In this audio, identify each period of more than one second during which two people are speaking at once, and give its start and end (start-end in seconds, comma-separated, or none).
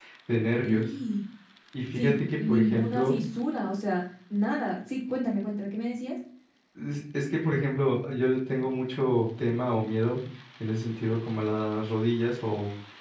1.9-3.1